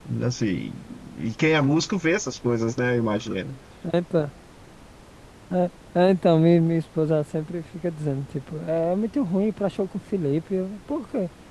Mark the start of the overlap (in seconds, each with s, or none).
none